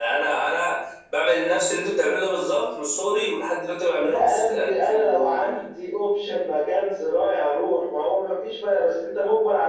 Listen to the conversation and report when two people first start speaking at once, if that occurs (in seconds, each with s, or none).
4.0 s